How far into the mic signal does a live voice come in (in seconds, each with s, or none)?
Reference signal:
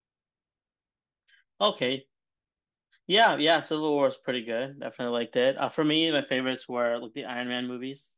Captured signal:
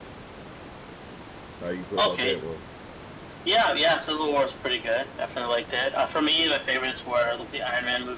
1.6 s